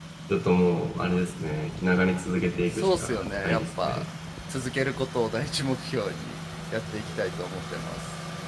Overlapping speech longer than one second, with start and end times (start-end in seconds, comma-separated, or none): 2.7-4.0